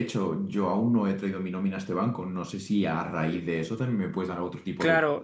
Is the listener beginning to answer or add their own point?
Yes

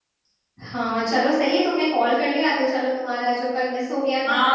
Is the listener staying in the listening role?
No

